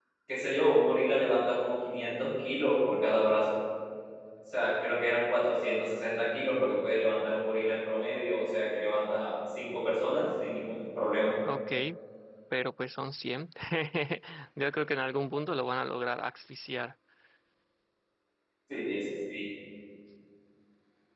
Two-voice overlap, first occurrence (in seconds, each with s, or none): none